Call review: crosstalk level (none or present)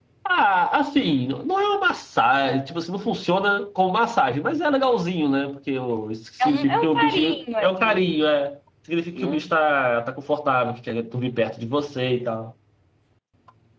present